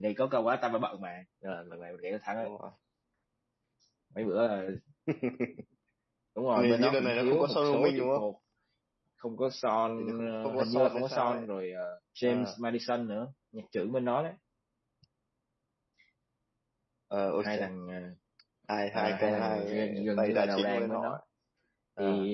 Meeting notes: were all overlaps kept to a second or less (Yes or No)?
No